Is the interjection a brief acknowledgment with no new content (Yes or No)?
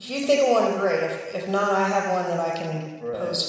No